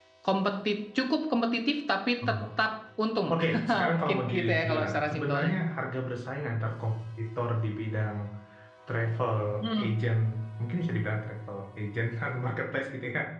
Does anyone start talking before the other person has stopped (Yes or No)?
Yes